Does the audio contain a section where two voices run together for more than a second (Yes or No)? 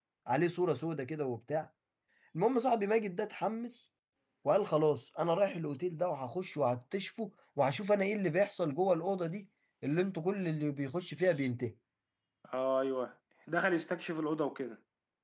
No